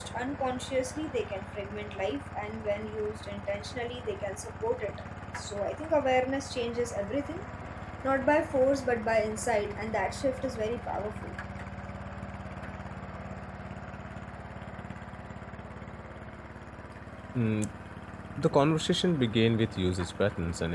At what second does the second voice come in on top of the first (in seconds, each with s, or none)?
none